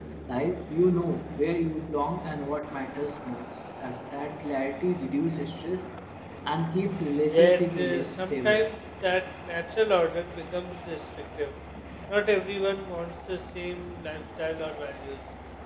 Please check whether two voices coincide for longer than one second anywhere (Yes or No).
Yes